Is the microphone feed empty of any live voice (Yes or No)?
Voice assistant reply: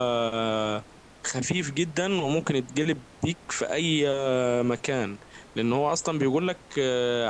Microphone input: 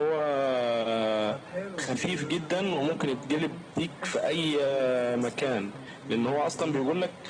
No